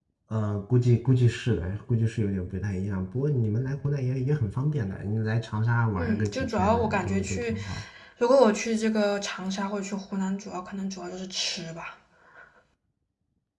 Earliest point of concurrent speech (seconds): 6.0 s

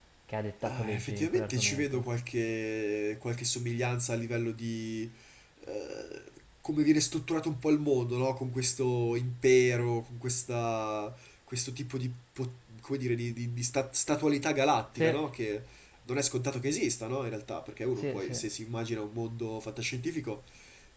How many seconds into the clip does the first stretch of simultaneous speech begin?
0.6 s

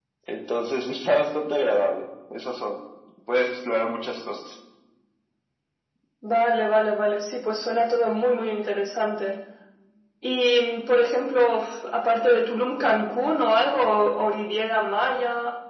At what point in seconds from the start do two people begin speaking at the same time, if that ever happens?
none

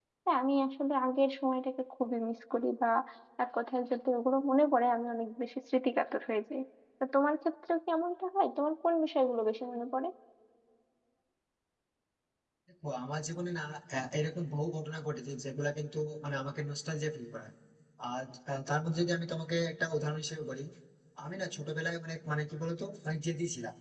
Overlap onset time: none

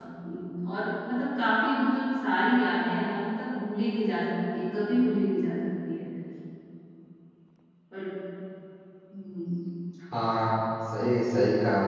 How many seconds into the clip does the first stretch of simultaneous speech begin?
none

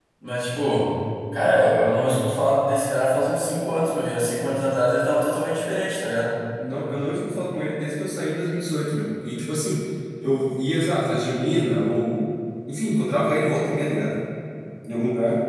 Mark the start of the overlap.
none

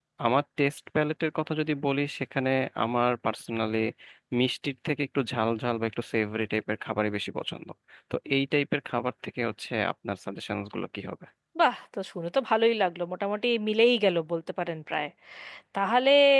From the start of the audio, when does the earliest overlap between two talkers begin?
none

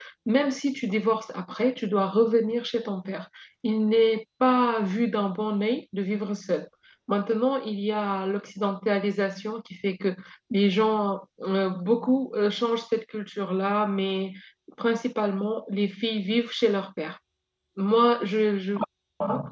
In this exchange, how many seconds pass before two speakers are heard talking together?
none

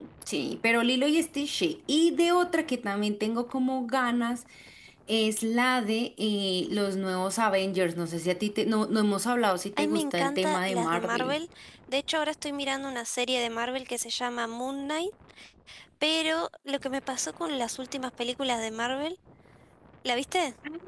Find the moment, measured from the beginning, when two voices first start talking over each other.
9.8 s

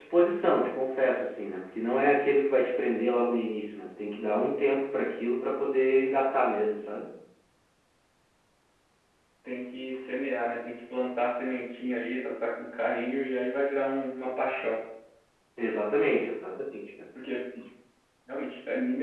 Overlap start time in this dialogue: none

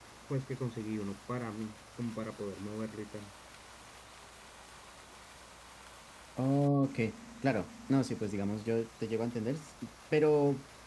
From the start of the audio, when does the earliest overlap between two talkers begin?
none

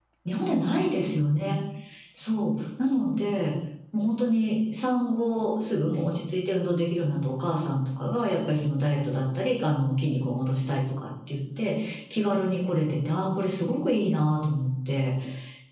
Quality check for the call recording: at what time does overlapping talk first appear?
none

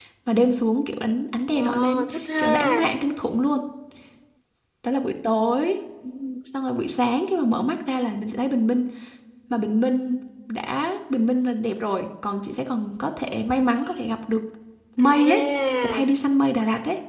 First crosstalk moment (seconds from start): 1.5 s

